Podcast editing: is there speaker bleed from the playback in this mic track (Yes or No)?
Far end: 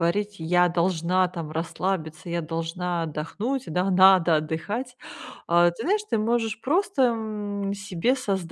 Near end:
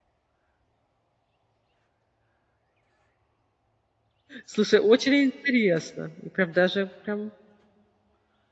No